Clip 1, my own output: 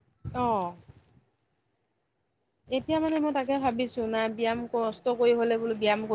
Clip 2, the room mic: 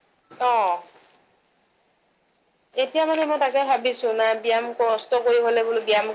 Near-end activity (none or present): none